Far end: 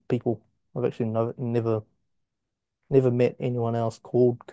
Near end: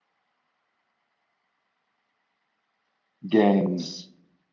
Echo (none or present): none